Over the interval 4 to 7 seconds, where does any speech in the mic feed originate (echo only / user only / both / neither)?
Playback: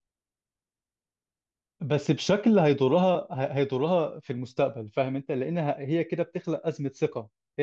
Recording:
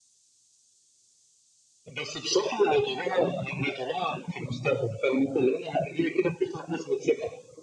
echo only